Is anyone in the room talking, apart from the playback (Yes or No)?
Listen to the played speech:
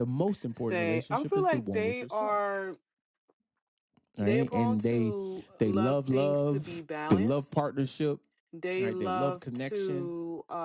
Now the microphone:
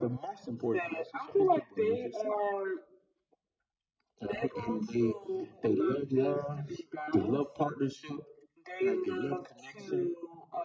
No